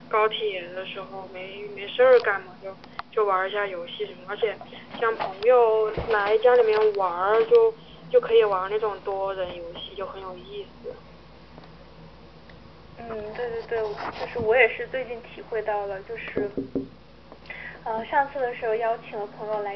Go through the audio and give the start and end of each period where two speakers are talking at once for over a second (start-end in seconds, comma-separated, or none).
none